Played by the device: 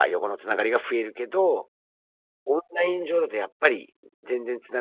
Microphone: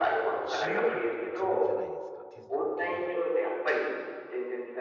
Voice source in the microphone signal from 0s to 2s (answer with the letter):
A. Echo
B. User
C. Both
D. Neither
C